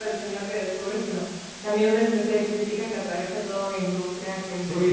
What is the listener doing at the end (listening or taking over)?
taking over